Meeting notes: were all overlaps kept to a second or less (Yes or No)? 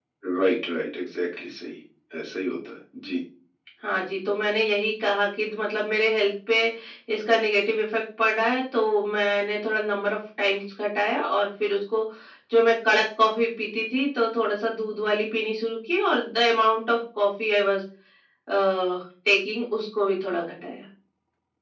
Yes